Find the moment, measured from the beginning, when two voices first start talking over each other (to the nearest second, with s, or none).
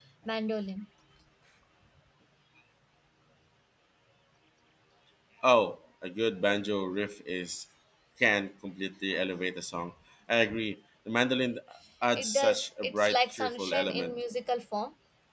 12 s